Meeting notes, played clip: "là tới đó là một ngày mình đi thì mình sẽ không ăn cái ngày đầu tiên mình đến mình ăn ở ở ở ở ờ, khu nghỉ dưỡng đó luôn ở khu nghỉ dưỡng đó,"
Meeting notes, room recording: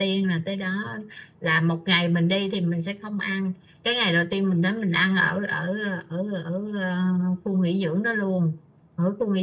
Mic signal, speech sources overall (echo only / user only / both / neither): echo only